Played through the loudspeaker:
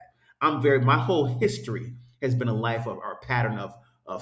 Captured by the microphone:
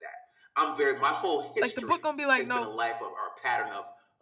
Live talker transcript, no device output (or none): Like the book gonna be like, no,